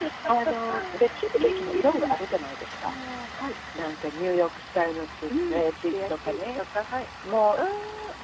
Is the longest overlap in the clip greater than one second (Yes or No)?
Yes